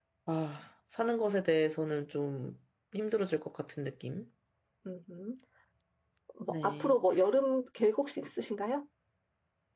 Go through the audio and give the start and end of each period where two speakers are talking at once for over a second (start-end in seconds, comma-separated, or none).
none